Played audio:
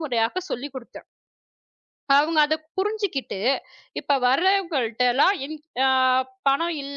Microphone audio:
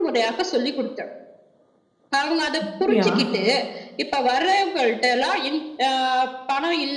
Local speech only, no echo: அப்படியா?

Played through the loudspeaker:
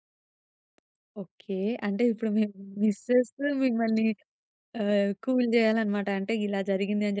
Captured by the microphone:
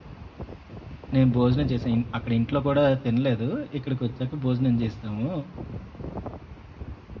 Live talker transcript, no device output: నేను భోజనం చేశా. ఇన్ అక్కడ ఇంట్లో కూడా తినలేదు. ఇక్కడికొచ్చాక భోజనం చేశాము.

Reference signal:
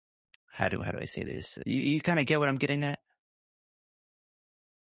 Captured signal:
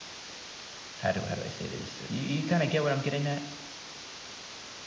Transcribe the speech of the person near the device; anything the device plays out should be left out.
none

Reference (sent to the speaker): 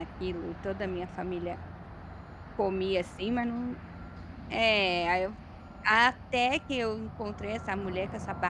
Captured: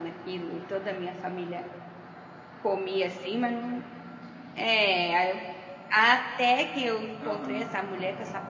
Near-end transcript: Aham.

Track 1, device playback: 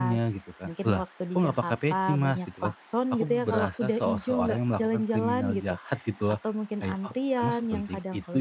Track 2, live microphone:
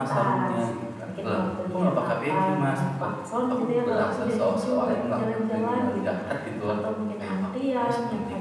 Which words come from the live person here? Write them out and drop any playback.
none

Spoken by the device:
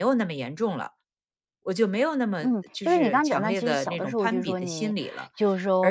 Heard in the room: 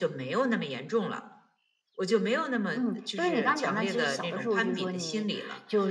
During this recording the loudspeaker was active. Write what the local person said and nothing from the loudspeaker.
none

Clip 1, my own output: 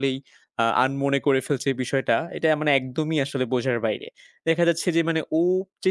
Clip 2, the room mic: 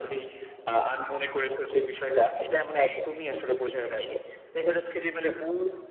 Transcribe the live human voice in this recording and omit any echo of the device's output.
none

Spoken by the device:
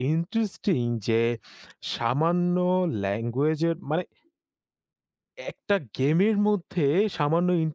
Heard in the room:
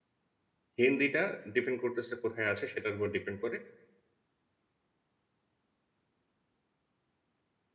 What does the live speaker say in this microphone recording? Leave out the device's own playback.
হিন্দিটা ডিপেন্ড করতেছে কোথায় আছে সেটার উপর ডিপেন্ড করে

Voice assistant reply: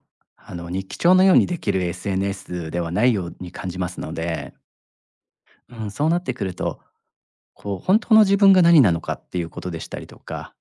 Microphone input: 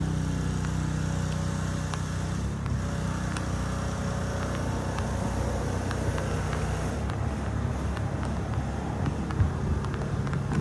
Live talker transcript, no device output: none

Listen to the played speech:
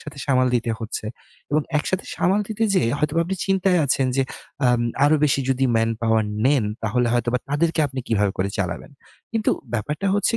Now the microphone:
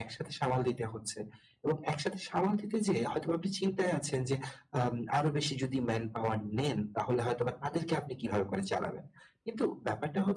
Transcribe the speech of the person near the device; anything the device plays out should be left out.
none

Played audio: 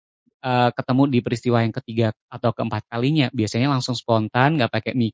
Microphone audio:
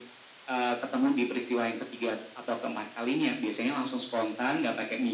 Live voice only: none

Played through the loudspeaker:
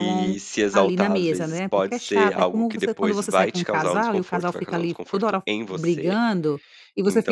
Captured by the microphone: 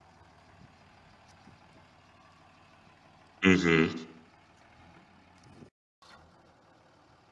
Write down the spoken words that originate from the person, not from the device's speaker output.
uhum,

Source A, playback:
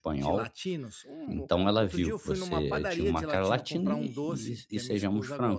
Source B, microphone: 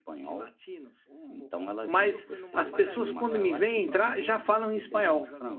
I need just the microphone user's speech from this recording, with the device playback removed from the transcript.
mas as pessoas quando me veem entrar já falam em espanhol,

